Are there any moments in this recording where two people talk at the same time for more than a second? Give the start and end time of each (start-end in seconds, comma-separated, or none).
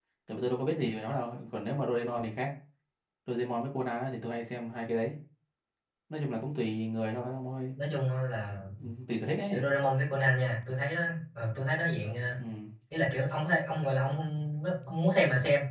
none